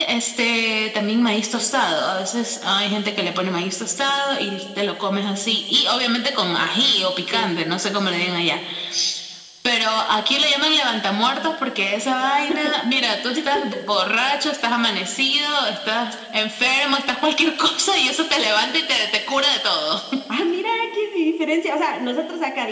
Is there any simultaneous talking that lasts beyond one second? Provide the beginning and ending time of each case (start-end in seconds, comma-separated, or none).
none